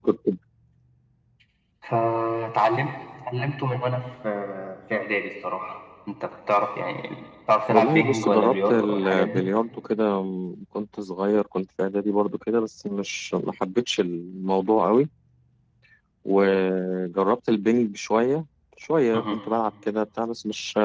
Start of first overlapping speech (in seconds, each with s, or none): 7.7 s